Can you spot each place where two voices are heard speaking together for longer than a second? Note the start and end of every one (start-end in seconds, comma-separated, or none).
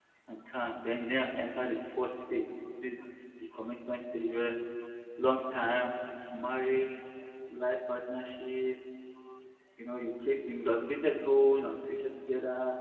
none